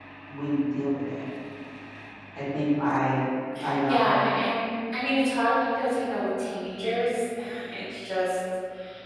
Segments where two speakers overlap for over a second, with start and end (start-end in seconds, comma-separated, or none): none